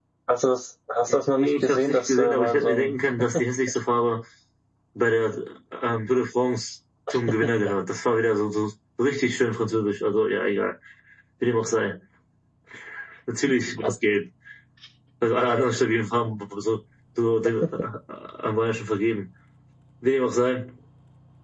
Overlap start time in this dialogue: 1.1 s

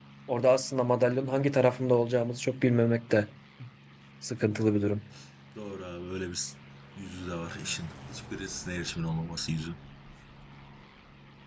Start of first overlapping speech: none

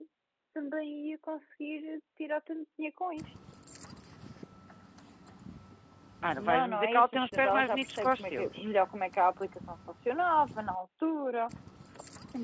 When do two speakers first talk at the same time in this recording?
6.4 s

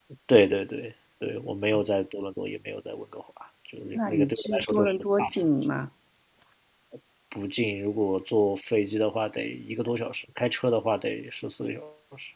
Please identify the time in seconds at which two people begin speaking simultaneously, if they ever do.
4.0 s

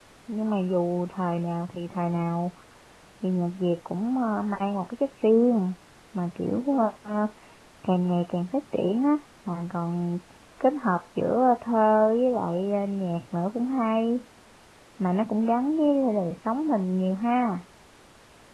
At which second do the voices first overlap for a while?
none

